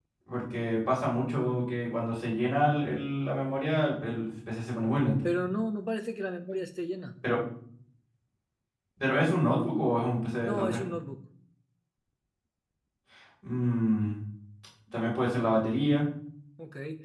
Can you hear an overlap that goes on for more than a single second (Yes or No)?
No